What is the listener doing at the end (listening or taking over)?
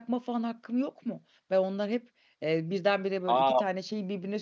listening